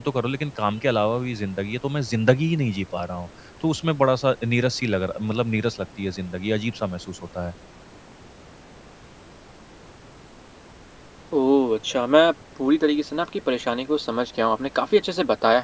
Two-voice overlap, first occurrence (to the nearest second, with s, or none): none